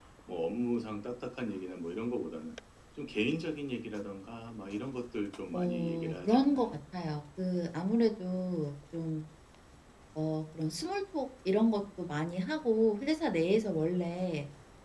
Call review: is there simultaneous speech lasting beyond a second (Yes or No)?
Yes